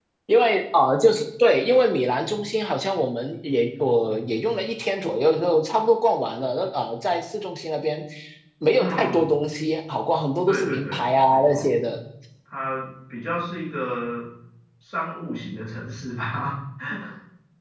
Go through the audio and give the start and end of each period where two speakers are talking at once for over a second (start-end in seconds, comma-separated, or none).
10.5-11.7